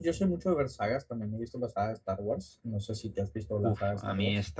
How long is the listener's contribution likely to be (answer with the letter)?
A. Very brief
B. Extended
B